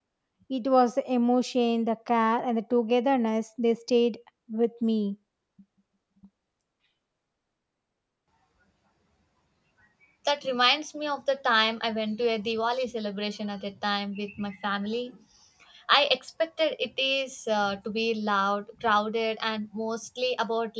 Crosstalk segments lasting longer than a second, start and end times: none

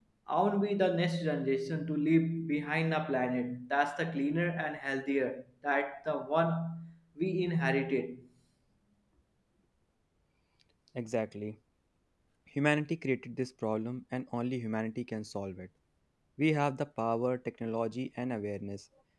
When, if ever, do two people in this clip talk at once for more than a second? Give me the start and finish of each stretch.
none

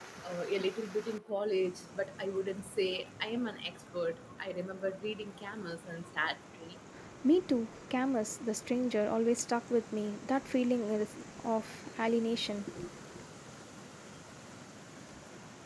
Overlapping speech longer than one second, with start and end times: none

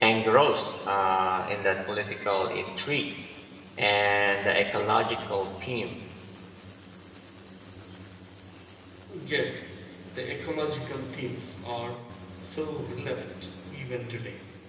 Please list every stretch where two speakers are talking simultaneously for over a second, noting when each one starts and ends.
none

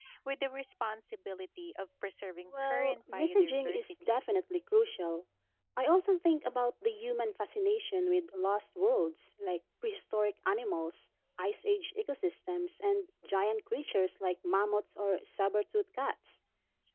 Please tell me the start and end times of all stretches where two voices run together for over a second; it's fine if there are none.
2.6-4.2

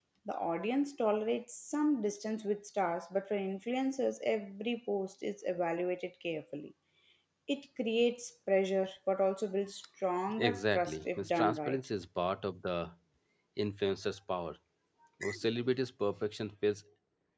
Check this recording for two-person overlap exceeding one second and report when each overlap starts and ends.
10.4-11.8

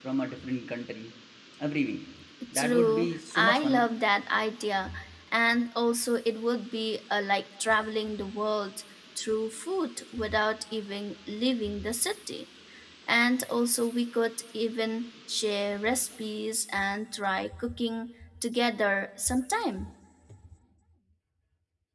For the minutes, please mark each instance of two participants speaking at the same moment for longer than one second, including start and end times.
2.6-3.9

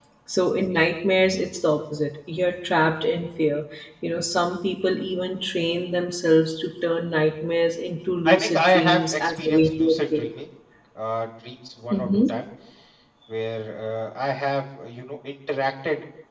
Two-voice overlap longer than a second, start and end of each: 8.2-10.3

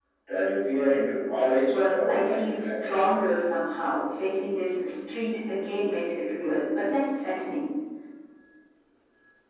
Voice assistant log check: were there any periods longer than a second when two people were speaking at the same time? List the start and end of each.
1.7-3.0

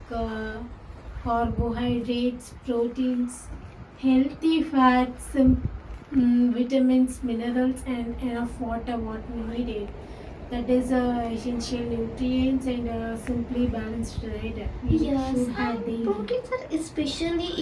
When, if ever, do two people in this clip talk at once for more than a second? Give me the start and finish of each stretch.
14.9-16.2

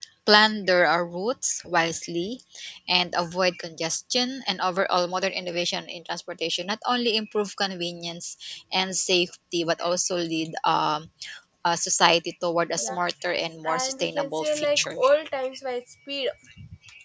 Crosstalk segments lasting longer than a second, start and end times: 13.6-15.0

